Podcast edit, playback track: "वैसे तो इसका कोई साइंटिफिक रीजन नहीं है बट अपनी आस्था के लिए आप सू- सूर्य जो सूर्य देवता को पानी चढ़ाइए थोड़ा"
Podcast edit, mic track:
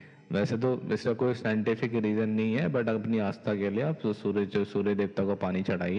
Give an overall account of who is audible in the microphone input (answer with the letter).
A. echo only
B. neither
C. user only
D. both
A